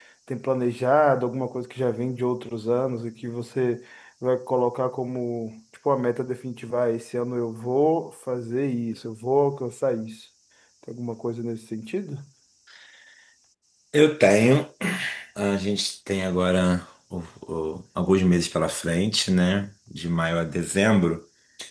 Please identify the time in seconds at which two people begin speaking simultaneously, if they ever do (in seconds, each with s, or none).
none